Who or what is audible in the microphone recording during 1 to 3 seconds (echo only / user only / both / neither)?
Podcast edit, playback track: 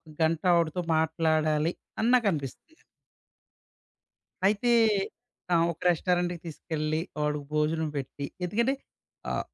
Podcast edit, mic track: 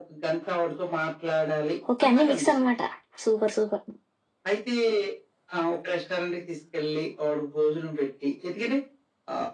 both